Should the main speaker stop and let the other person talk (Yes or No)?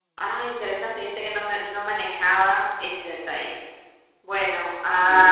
No